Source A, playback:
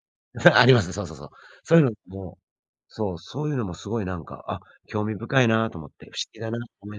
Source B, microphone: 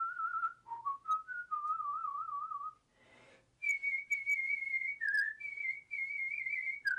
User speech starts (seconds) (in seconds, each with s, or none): none